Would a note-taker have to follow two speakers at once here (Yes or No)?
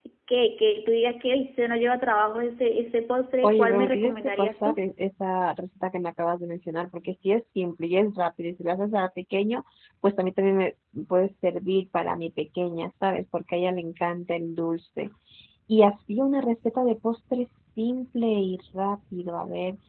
Yes